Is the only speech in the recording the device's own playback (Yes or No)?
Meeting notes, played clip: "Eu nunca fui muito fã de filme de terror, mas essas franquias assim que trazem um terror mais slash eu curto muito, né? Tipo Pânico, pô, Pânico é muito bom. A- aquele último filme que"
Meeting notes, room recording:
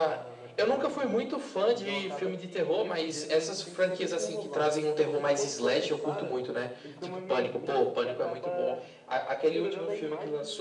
No